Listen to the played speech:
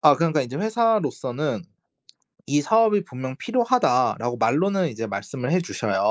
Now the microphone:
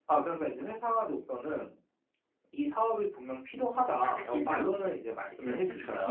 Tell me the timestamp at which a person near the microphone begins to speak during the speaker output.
4 s

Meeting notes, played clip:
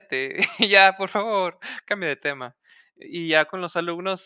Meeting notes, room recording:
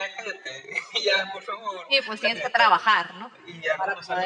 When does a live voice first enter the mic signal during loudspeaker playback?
2 s

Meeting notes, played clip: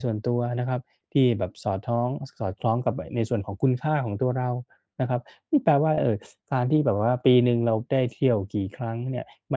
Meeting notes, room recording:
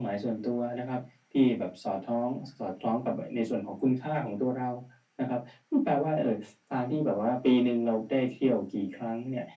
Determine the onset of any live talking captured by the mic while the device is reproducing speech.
none

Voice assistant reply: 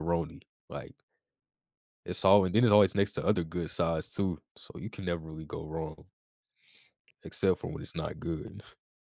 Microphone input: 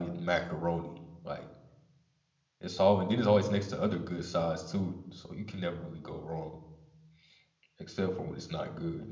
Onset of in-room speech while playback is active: none

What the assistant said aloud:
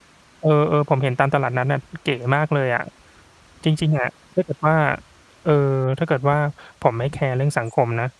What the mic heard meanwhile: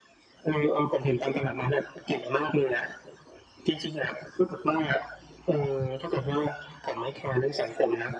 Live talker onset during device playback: none

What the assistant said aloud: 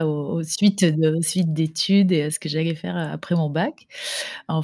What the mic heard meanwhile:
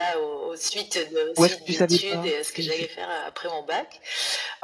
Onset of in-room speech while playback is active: 1 s

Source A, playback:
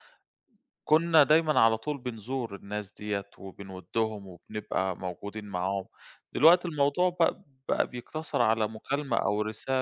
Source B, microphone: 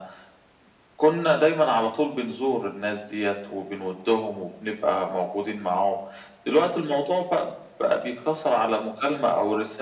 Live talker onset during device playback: none

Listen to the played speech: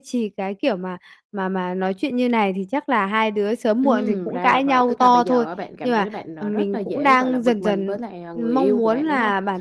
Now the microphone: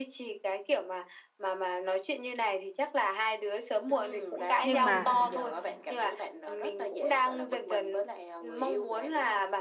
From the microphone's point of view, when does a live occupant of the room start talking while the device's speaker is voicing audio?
5 s

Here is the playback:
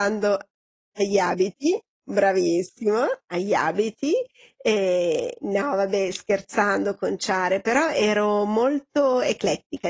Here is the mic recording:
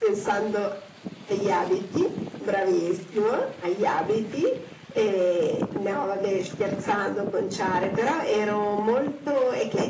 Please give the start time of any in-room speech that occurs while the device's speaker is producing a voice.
none

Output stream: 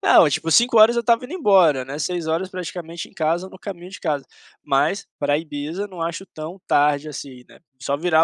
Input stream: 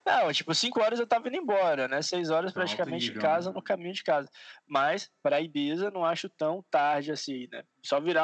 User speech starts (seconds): 3 s

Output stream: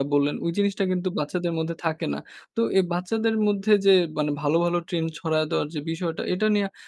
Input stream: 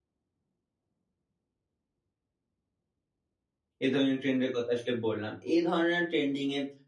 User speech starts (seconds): 4 s

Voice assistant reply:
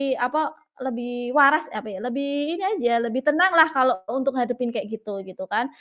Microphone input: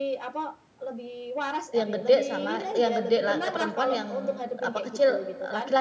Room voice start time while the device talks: 2 s

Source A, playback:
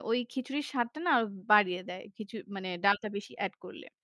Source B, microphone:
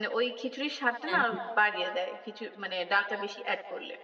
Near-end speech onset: 1 s

